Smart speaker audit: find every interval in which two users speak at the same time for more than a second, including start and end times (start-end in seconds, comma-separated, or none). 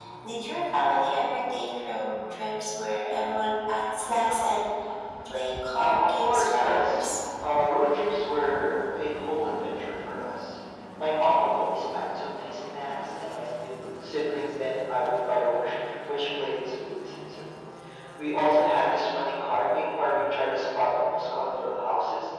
5.8-7.0